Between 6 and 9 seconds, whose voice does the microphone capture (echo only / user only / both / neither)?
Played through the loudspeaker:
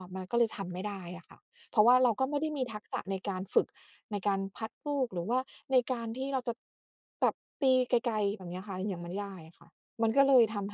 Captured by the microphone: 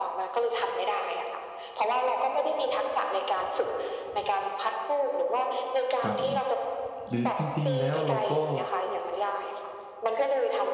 both